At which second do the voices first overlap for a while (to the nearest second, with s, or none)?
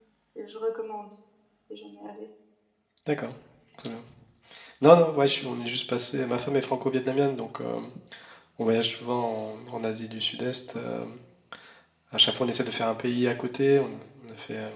none